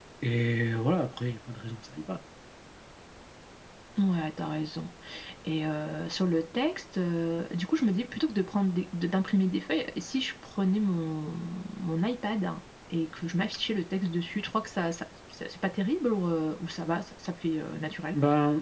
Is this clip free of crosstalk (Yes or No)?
Yes